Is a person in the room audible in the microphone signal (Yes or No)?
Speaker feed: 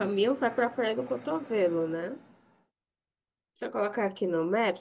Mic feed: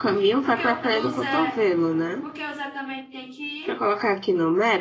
Yes